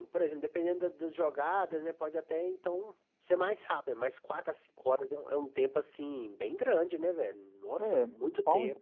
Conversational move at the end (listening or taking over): taking over